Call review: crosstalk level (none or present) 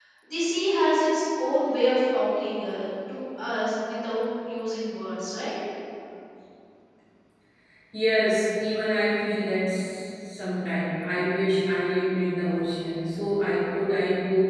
none